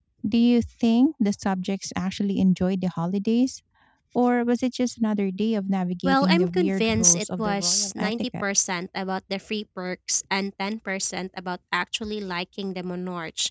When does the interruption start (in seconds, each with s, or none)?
6.0 s